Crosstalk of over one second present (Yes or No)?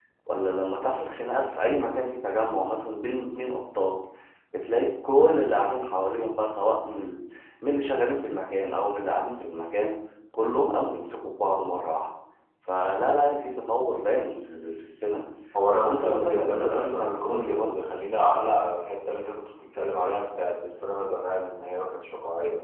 Yes